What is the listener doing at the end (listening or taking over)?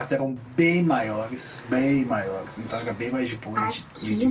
taking over